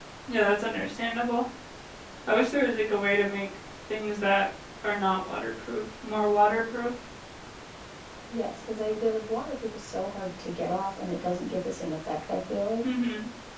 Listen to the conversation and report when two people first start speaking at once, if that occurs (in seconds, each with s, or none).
none